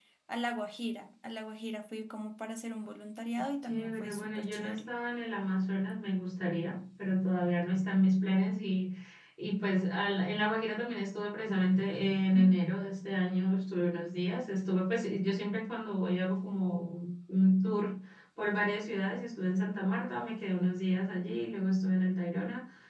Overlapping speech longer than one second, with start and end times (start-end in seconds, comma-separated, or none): 3.7-4.9